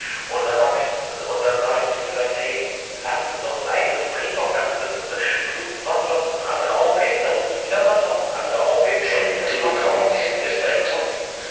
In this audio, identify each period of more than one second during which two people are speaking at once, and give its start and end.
9.0-10.8

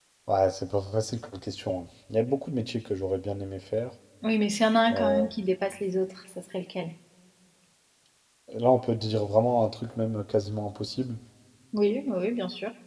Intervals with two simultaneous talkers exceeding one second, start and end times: none

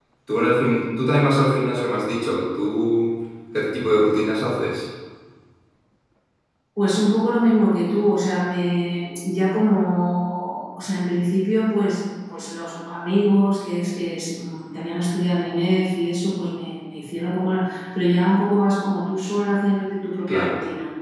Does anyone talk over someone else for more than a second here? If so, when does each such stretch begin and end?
none

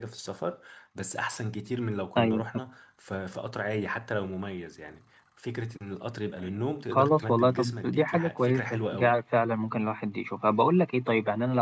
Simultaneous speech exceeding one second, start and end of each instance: 6.9-9.1

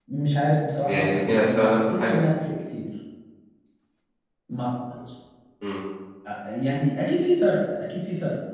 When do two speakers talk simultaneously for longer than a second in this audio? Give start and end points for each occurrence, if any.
0.8-2.2

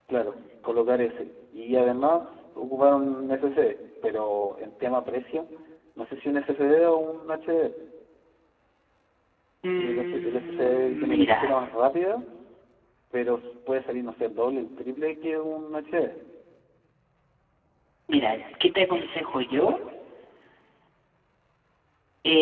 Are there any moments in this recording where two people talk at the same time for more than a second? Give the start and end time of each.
9.8-11.4

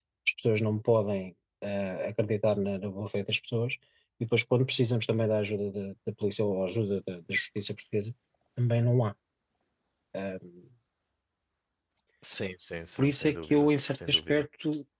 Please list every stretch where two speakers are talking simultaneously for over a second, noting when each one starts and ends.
13.0-14.4

